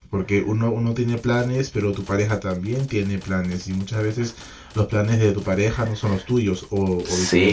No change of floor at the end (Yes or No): No